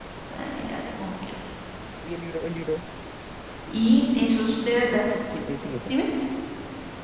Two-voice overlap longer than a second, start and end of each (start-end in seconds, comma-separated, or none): none